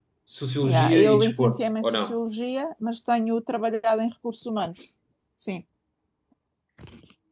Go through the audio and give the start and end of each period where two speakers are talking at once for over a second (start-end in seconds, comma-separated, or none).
0.6-2.1